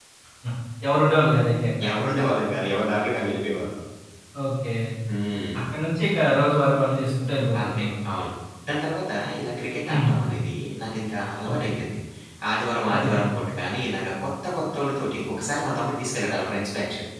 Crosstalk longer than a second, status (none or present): none